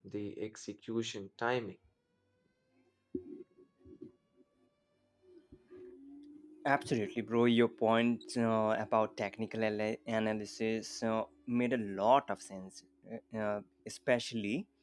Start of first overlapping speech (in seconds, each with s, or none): none